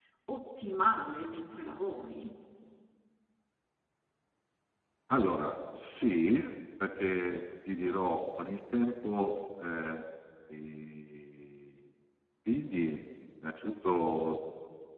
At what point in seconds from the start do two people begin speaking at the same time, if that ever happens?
none

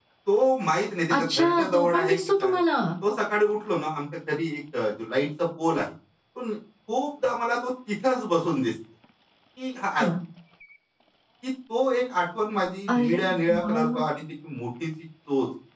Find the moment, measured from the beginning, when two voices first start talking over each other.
1.2 s

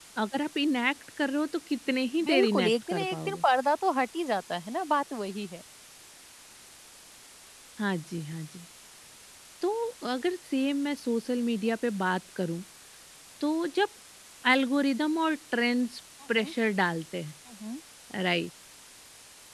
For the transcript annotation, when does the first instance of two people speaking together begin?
2.2 s

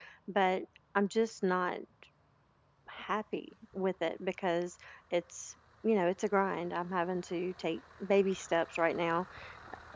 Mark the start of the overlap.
none

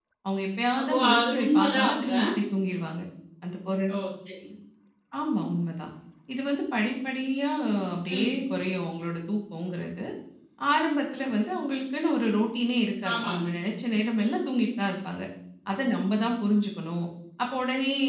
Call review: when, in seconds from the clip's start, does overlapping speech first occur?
0.8 s

